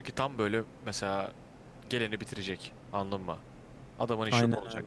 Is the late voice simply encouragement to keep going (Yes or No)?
No